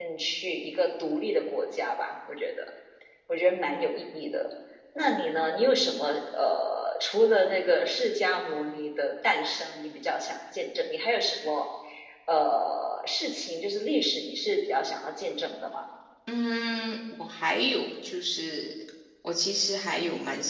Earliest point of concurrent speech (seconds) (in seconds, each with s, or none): none